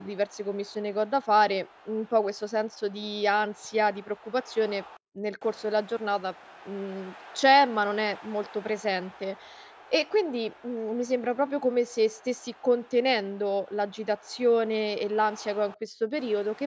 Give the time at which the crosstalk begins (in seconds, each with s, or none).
none